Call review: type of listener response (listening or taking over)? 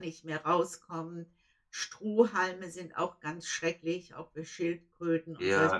taking over